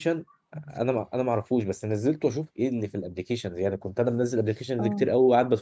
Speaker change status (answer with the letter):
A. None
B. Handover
A